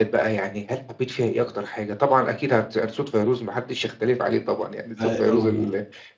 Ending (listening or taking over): listening